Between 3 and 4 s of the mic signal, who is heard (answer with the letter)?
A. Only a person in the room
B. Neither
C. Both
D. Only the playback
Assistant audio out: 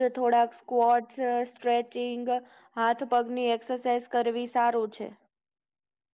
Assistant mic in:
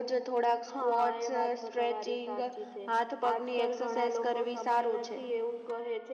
C